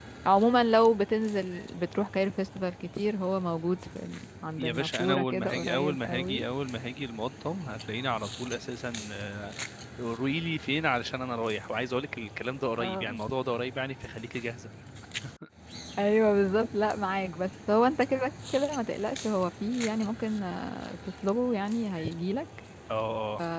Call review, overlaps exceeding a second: present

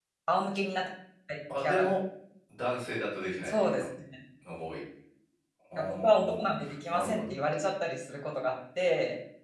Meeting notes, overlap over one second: present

